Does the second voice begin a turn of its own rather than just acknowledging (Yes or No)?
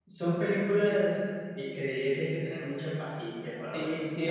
Yes